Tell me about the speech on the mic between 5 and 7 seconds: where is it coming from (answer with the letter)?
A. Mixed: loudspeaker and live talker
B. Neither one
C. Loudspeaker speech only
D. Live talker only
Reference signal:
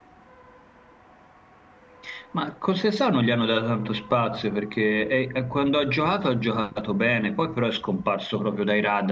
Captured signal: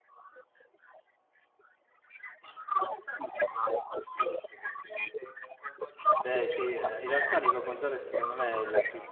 A